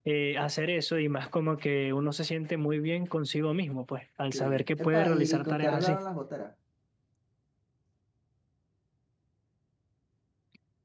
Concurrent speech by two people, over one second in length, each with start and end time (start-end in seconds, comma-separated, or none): 4.3-6.0